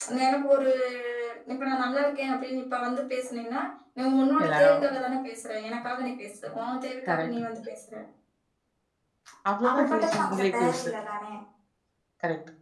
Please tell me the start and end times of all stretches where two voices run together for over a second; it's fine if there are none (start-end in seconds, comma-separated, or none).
9.7-10.9